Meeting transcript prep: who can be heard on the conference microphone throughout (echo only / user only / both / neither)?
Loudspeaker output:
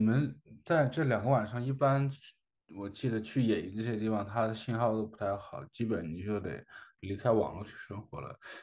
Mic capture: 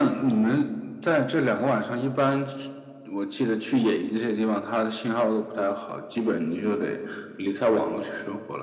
echo only